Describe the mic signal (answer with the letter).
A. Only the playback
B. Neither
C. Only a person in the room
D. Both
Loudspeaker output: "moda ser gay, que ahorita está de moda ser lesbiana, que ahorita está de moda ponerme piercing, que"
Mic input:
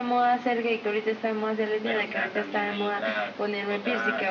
D